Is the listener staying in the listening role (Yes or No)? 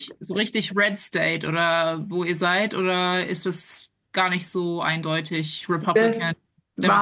No